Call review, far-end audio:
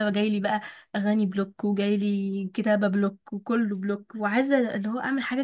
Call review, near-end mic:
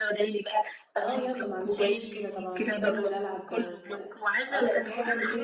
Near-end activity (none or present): present